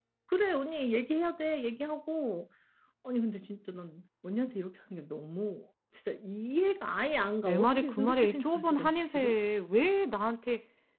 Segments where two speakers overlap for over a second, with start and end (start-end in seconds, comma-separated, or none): 7.4-9.4